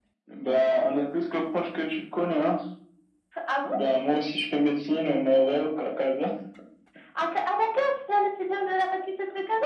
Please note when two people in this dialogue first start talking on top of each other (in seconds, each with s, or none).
none